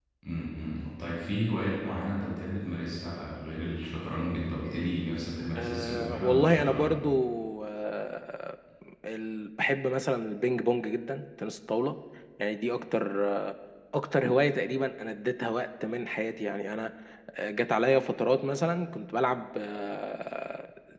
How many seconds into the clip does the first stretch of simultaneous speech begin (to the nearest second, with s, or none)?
6 s